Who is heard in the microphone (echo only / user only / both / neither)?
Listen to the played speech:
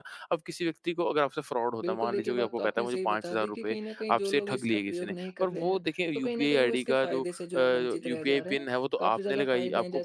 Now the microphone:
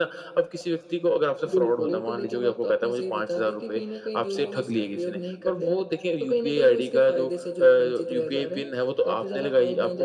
both